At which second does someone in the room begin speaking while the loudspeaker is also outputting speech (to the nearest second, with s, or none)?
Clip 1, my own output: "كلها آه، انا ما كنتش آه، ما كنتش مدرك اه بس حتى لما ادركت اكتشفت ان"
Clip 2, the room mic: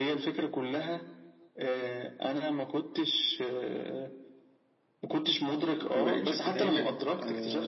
6 s